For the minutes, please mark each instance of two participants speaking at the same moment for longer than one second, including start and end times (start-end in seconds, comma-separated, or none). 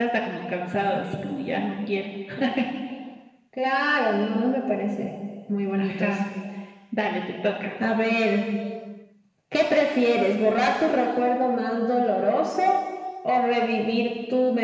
none